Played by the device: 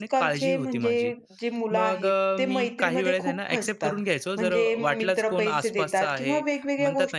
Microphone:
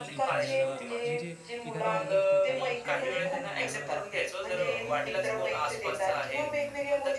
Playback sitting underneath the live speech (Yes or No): No